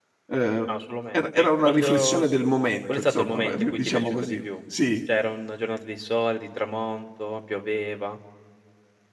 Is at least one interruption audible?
Yes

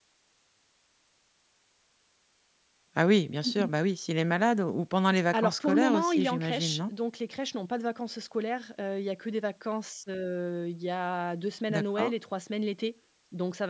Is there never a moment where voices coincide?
No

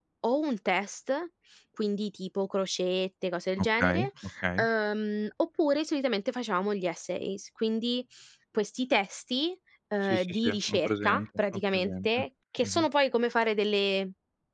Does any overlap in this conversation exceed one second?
Yes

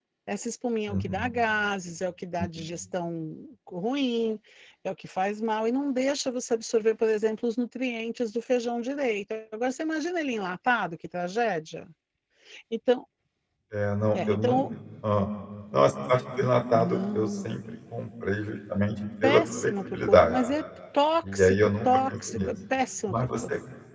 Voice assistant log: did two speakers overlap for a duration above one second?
Yes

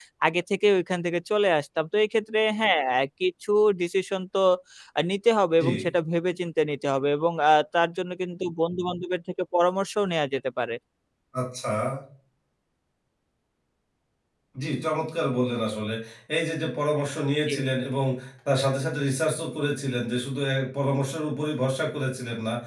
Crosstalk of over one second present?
No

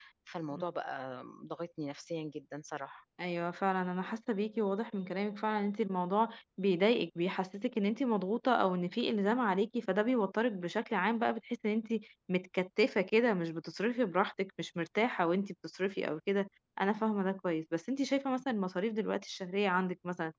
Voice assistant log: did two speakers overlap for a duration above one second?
No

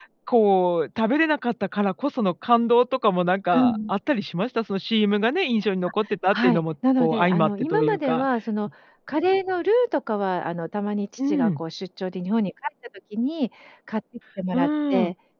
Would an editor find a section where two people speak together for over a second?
Yes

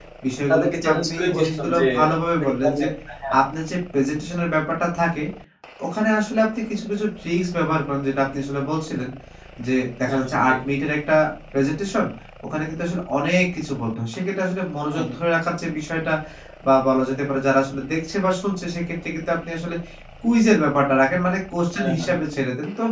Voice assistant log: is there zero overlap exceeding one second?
No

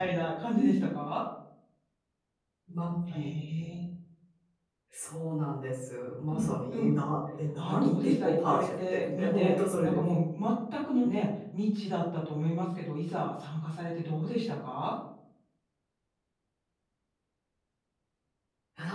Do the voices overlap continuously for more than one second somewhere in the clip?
Yes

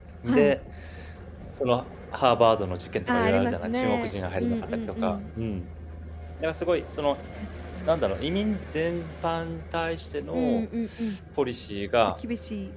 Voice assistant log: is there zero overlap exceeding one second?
No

